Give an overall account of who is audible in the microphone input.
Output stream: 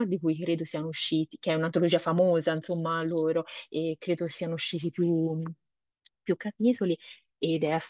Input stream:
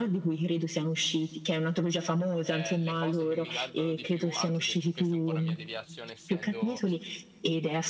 both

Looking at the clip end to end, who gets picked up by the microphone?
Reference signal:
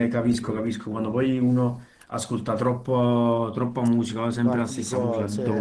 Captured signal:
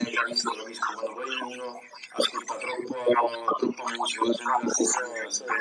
echo only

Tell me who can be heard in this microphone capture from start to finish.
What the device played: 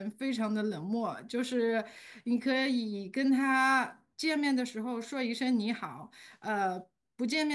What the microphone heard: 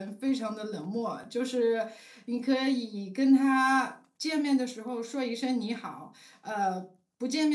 echo only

